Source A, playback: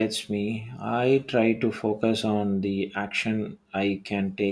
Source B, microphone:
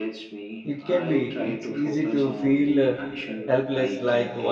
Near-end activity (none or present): present